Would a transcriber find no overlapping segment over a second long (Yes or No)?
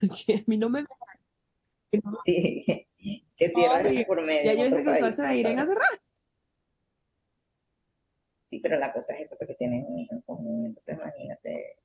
No